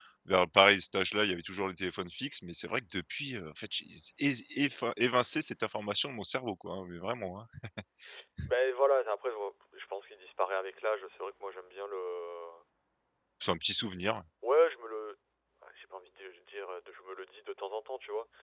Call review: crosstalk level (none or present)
none